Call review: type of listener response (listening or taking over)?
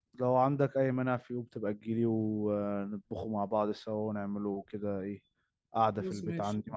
taking over